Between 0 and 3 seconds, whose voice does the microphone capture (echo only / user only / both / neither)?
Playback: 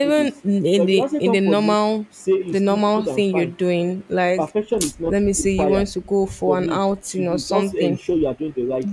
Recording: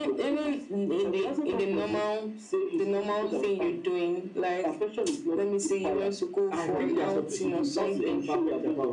echo only